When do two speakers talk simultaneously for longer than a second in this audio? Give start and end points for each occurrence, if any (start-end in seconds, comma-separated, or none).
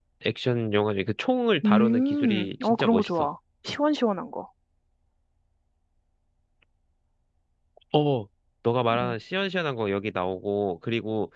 1.6-3.3